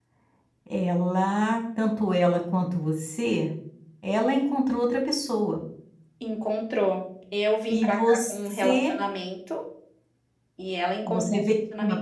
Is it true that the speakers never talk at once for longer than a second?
No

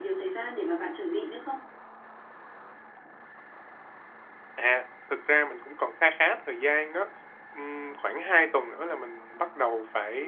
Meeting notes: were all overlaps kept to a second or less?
Yes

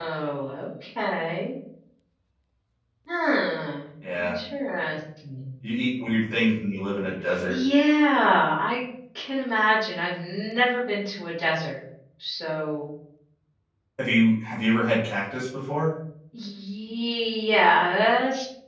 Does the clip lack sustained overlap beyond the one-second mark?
Yes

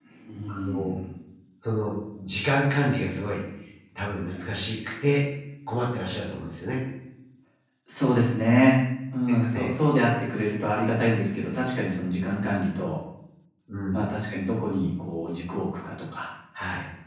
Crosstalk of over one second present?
No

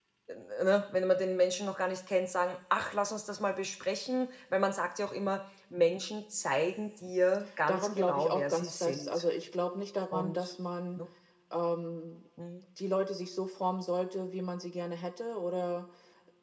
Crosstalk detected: Yes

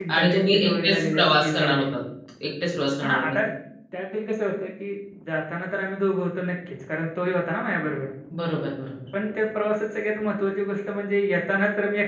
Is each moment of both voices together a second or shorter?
No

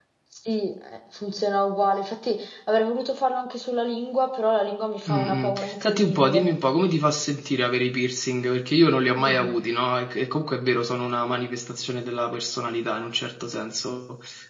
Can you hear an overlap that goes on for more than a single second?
Yes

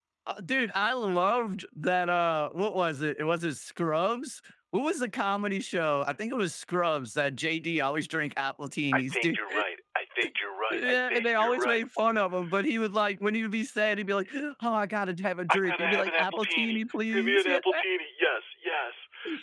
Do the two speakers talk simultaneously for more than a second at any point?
Yes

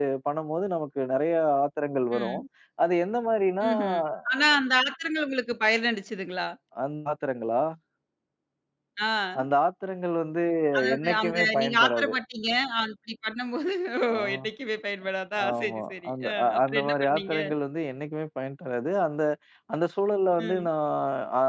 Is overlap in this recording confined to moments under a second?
No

